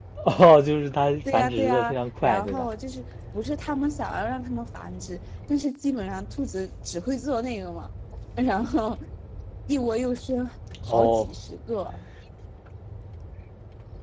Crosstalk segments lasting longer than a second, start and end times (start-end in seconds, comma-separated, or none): 1.3-2.7